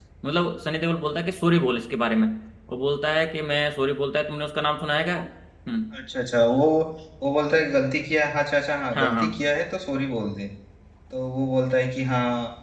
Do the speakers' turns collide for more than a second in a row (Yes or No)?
No